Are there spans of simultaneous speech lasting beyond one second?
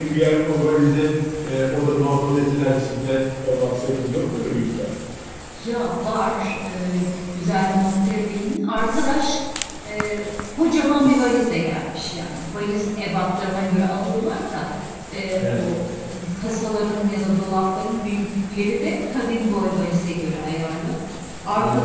No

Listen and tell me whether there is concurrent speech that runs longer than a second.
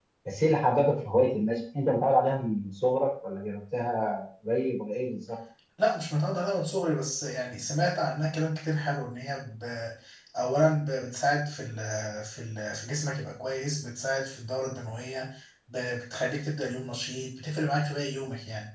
No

